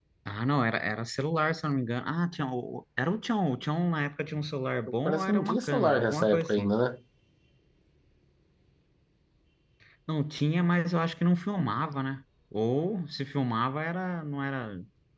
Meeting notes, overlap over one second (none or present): present